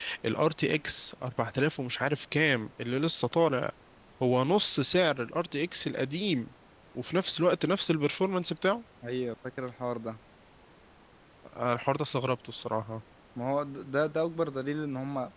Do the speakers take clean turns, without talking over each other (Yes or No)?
Yes